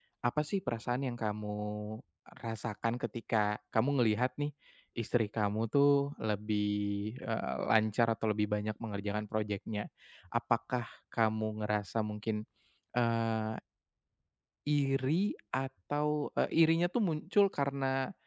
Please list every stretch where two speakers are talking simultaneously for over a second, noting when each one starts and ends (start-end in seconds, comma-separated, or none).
none